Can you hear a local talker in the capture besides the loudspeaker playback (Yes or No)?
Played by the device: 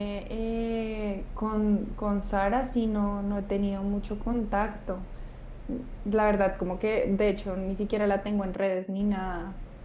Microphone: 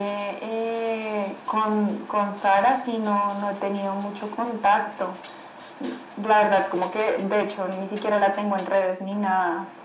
No